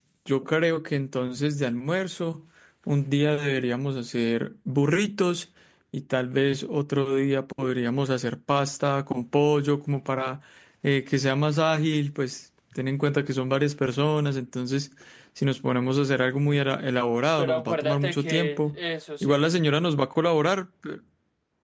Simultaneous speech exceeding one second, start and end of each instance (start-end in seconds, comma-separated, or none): 17.4-18.8